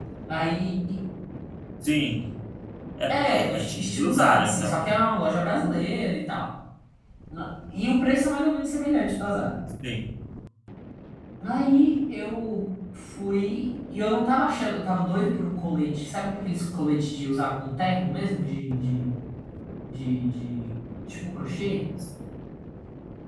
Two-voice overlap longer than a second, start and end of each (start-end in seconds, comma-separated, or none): 3.1-4.9